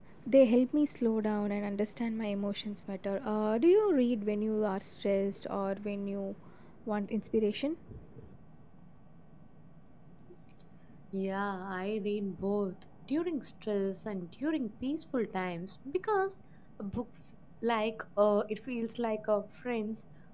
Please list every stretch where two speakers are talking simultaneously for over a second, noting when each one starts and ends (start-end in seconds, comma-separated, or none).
none